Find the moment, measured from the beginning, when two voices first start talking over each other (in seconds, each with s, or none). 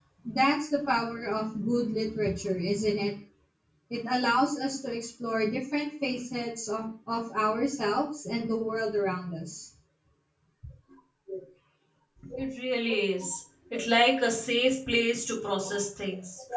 none